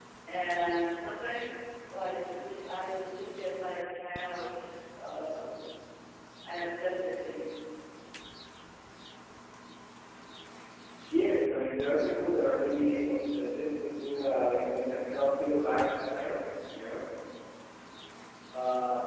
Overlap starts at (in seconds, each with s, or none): none